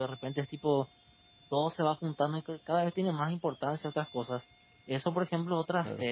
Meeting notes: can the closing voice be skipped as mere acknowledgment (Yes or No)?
Yes